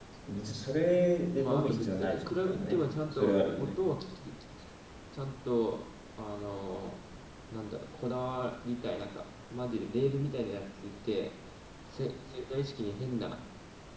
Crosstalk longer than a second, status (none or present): present